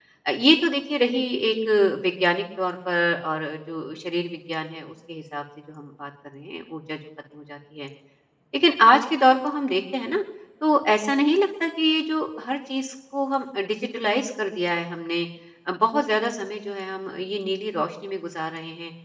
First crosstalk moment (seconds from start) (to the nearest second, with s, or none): none